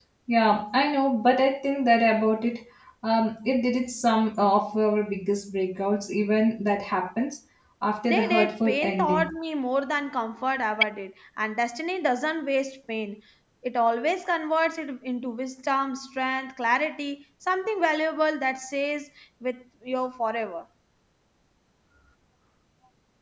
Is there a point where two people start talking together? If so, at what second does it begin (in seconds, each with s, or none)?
8.1 s